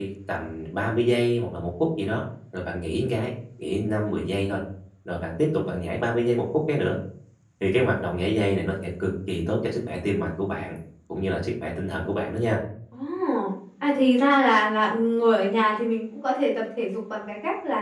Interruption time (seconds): none

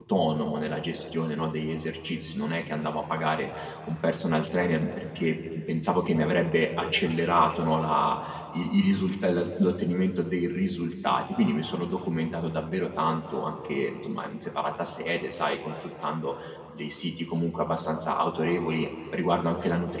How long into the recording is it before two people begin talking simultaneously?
none

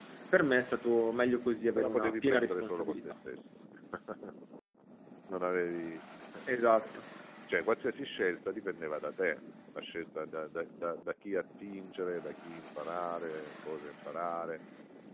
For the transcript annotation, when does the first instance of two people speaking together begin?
1.8 s

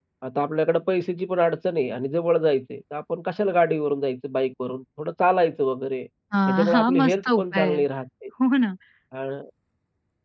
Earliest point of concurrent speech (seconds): 6.5 s

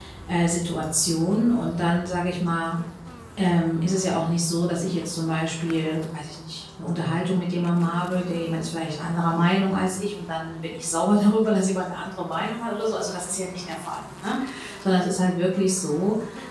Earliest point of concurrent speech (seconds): none

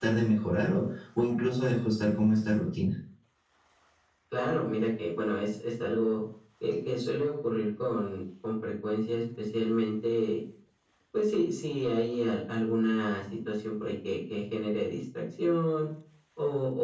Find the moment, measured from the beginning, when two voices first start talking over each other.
none

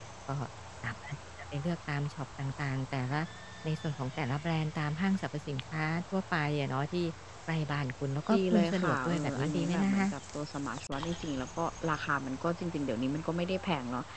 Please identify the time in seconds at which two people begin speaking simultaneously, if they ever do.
8.3 s

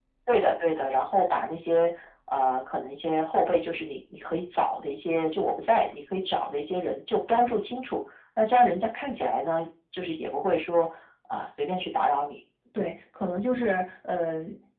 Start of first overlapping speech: none

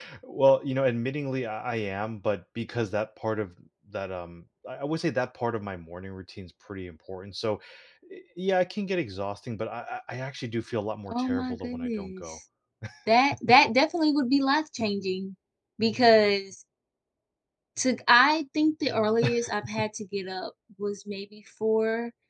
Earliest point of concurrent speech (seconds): 11.1 s

